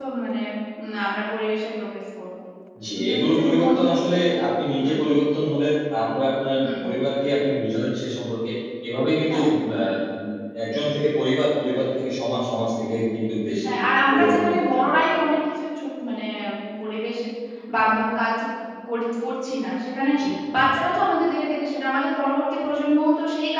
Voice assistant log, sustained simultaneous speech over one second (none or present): present